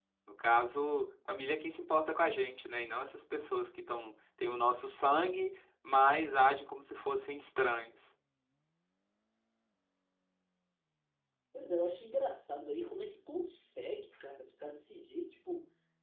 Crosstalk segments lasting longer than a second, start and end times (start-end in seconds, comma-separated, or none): none